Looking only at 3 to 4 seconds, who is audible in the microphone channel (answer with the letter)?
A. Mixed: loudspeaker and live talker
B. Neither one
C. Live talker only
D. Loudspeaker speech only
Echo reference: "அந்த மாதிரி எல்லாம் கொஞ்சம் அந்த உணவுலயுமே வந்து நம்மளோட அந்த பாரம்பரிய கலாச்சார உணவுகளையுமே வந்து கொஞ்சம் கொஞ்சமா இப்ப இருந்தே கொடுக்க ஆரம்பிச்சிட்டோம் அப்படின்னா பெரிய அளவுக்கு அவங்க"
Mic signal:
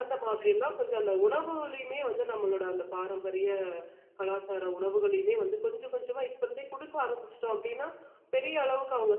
D